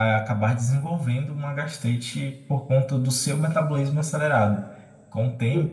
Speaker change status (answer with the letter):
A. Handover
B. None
B